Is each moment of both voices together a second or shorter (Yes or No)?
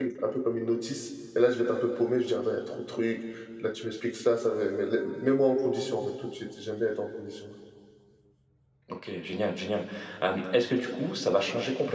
Yes